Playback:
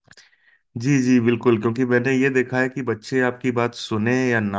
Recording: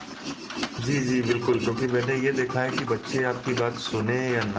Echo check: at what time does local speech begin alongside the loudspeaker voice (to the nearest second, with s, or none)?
none